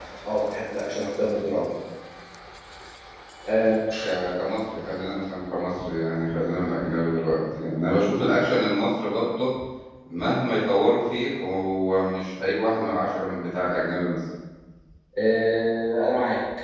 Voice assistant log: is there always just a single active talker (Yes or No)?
Yes